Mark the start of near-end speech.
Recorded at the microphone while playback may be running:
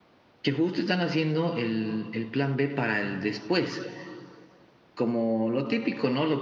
none

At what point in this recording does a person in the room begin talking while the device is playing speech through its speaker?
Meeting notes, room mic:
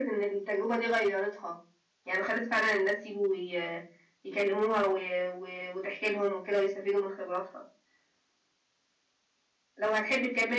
none

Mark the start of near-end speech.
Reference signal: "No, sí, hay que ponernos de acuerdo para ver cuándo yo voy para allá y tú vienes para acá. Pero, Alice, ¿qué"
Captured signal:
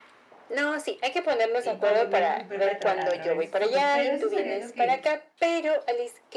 1.6 s

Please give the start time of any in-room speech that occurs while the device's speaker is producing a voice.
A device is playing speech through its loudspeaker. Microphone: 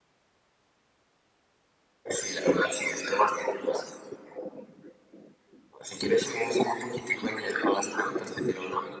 none

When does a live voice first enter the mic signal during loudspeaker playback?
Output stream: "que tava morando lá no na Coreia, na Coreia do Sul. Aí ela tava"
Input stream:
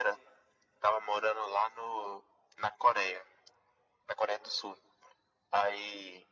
none

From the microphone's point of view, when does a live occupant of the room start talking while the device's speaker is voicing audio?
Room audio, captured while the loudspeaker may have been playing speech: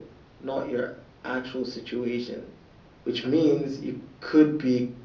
none

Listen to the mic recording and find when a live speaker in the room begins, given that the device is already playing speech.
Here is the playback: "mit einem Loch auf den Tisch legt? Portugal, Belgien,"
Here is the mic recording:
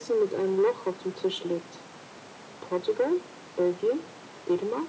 none

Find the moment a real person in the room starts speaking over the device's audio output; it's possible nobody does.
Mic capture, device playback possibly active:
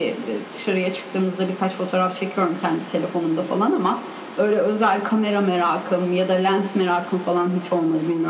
none

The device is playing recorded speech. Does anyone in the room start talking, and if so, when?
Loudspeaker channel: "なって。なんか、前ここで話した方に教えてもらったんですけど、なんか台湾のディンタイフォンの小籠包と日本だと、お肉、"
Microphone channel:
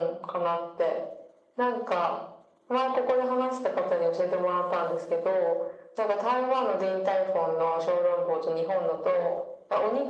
none

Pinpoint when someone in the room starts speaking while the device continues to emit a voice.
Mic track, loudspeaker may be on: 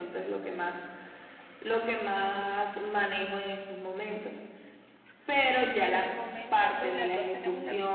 5.8 s

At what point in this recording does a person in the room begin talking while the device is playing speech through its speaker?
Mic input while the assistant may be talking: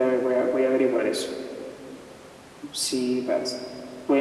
none

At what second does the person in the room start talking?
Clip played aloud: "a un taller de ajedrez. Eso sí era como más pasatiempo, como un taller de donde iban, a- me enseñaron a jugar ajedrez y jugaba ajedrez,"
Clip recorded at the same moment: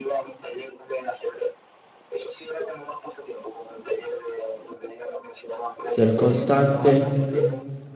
5.8 s

